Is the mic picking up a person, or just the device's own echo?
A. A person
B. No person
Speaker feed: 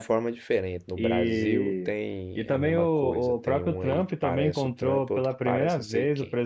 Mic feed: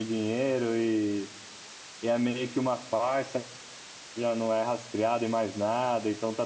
A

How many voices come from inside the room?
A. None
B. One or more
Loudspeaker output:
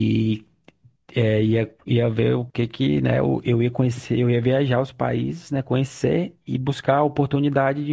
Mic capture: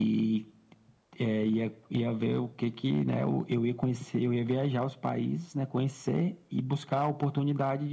A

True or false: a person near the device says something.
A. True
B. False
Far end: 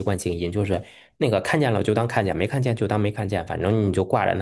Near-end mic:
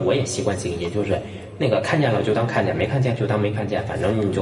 B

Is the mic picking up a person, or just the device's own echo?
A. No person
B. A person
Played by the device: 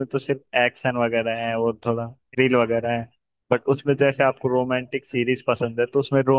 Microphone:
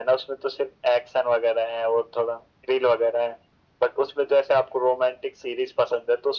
A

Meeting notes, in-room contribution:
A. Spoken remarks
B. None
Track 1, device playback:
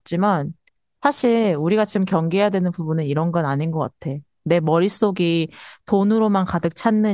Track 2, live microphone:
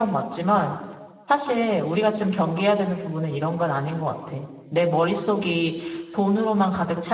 B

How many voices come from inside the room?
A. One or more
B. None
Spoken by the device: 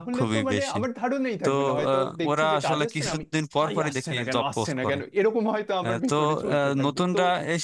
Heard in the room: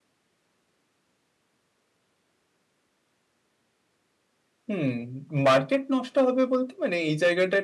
A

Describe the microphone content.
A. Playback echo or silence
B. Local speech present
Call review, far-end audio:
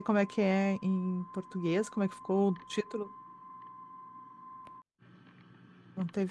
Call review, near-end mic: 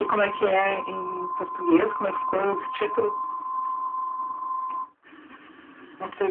A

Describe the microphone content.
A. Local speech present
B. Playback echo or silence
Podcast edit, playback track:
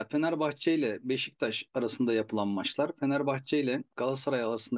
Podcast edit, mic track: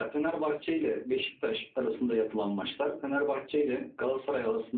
B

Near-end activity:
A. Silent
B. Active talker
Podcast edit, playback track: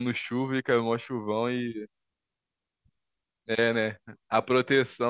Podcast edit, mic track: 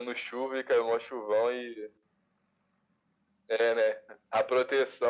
A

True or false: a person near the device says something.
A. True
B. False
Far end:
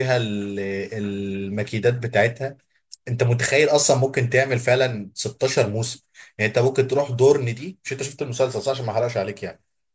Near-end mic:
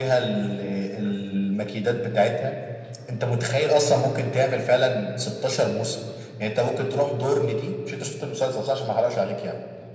B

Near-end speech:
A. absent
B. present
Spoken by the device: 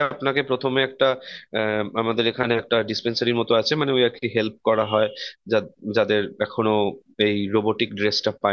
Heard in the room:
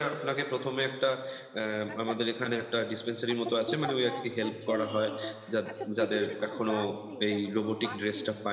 B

